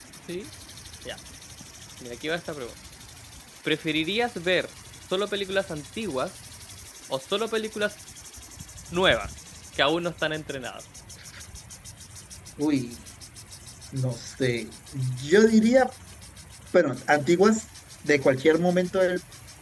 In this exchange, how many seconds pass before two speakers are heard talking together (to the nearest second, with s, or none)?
none